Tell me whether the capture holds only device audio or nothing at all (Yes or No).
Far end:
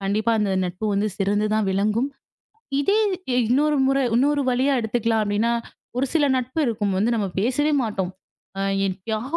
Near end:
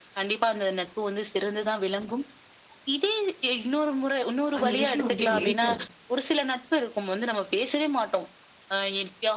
No